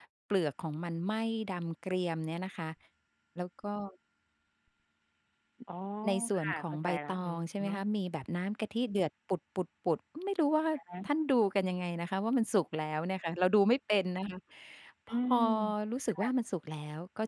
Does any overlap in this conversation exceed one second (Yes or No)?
Yes